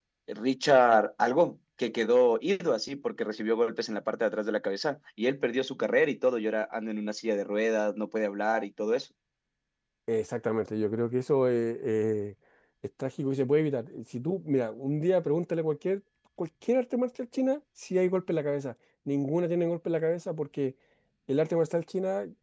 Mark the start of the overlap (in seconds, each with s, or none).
none